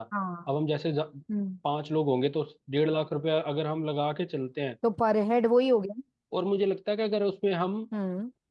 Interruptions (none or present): none